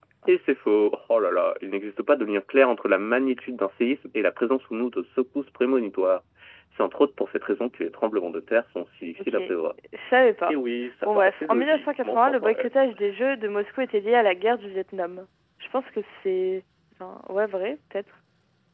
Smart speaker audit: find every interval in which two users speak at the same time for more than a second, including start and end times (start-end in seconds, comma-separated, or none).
11.1-12.7